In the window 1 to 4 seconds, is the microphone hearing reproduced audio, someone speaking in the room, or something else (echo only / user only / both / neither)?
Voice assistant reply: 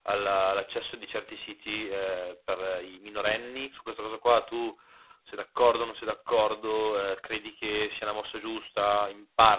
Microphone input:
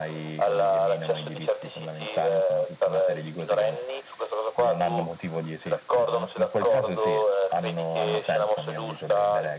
both